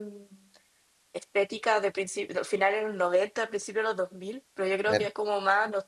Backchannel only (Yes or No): Yes